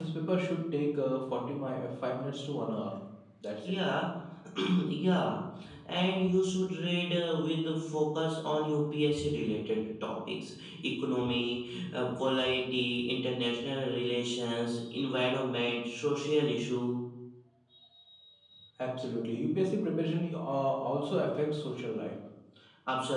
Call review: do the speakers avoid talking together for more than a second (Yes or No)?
Yes